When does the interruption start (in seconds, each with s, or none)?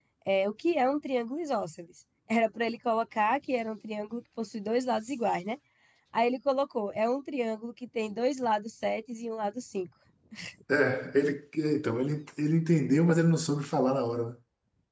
none